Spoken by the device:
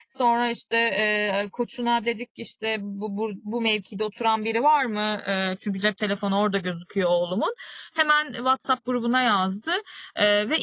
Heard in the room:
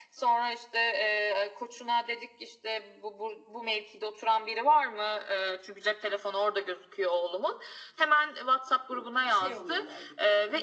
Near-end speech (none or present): present